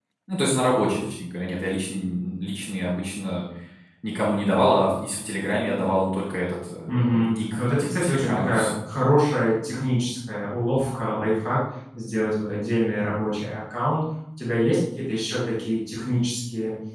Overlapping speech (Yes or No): Yes